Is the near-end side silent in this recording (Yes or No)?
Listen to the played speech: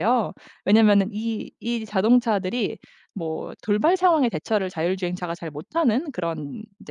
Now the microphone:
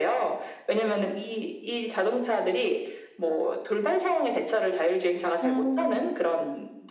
No